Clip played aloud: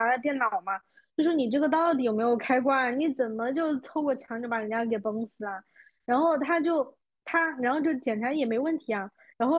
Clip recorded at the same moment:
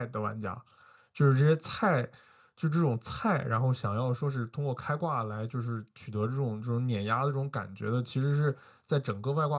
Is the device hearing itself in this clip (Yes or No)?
No